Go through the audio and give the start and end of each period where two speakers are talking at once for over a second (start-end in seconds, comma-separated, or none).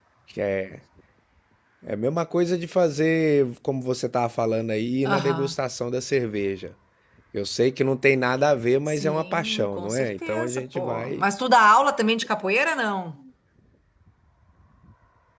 8.9-11.2